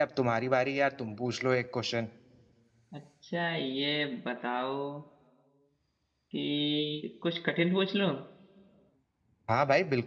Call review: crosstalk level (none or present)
none